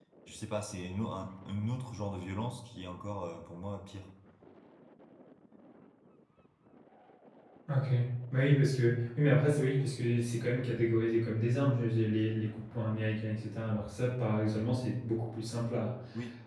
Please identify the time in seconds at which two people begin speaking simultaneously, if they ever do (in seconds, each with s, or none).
none